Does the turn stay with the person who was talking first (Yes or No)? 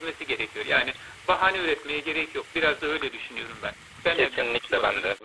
No